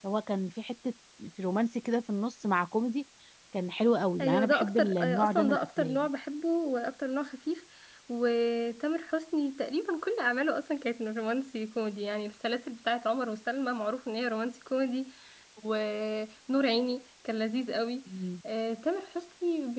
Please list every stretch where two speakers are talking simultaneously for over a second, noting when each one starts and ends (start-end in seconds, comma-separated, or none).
4.2-6.1